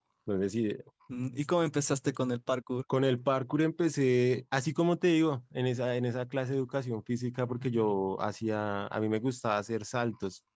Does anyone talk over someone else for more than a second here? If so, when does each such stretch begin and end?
none

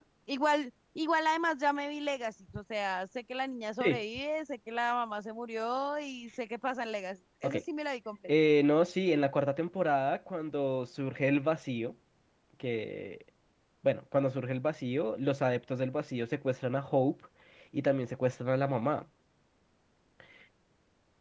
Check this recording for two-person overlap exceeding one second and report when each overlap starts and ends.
none

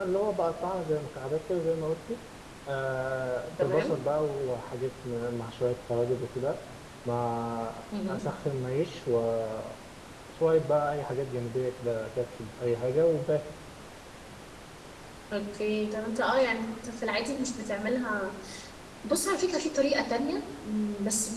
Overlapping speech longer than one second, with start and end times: none

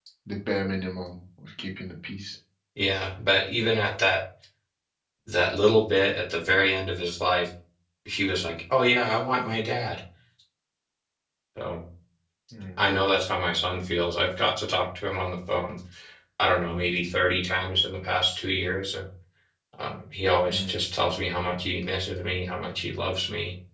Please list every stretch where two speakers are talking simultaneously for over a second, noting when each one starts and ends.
none

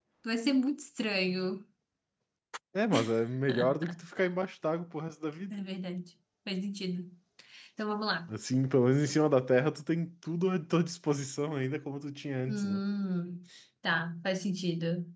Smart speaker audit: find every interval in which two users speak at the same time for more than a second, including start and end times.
none

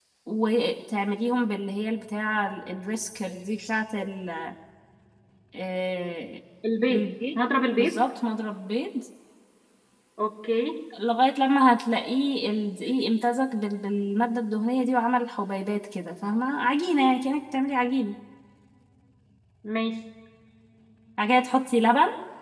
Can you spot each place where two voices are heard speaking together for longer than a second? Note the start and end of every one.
none

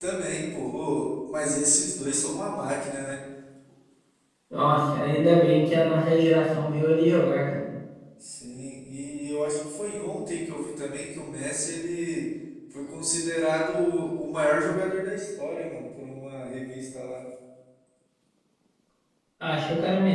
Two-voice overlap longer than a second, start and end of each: none

